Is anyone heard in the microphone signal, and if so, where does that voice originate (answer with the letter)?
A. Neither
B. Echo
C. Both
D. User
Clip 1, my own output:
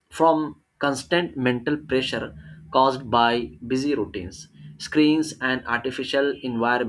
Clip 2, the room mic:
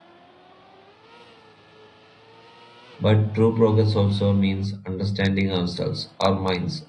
D